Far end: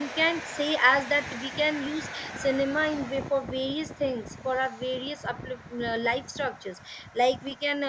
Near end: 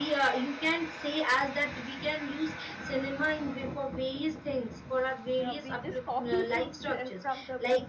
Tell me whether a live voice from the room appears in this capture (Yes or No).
Yes